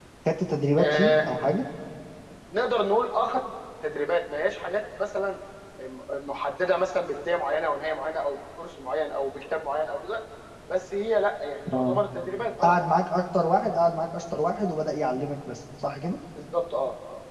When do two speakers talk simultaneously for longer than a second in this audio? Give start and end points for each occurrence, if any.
none

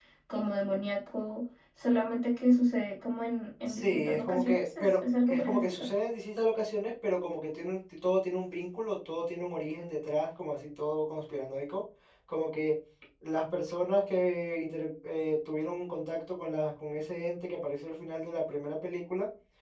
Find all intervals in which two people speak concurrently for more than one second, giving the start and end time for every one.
3.7-5.9

